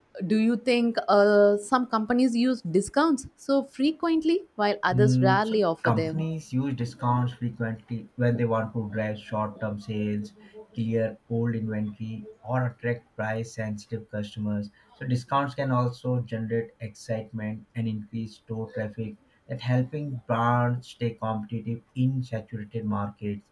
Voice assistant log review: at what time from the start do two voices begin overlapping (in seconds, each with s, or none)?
4.9 s